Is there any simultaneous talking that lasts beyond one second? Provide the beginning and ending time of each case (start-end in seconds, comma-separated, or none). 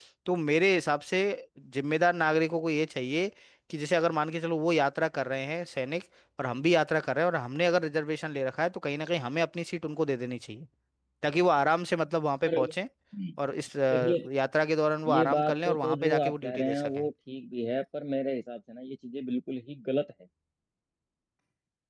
15.1-17.1